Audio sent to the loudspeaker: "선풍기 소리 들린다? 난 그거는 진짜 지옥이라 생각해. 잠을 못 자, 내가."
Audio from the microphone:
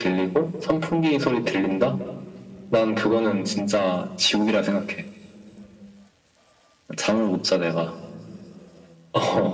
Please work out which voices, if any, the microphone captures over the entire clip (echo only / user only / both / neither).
echo only